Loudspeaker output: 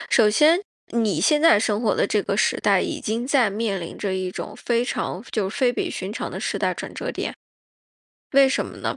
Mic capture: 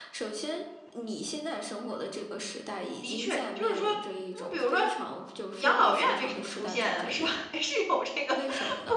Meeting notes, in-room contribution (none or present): present